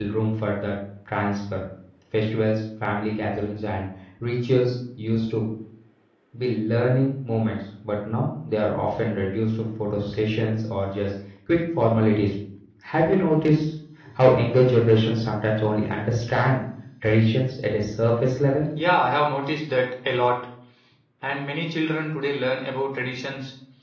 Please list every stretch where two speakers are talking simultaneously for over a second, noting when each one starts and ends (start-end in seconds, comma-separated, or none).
none